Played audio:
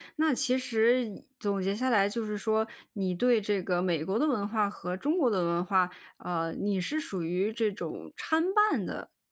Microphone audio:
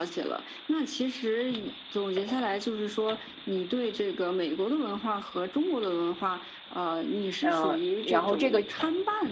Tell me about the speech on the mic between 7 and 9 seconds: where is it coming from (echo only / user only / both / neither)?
both